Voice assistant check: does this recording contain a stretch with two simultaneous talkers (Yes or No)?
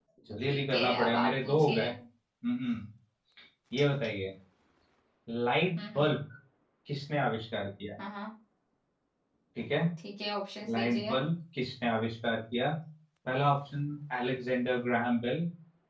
Yes